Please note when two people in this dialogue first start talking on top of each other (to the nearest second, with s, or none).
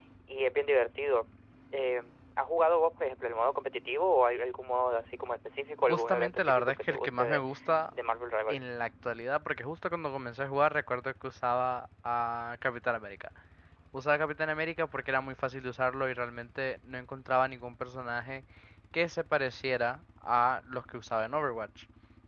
6 s